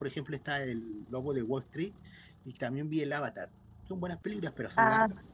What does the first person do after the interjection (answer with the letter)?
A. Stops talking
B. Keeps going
A